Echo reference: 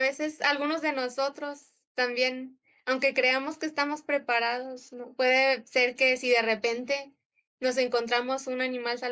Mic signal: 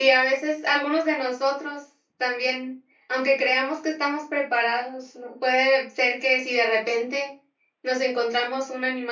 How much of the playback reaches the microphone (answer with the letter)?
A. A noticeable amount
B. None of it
A